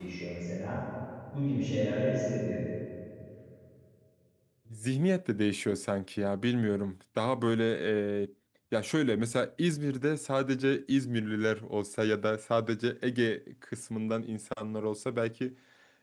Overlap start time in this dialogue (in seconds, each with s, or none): none